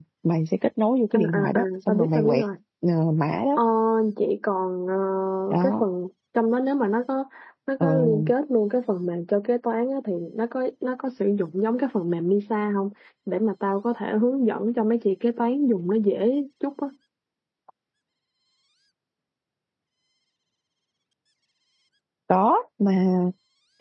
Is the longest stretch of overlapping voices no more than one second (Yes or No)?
No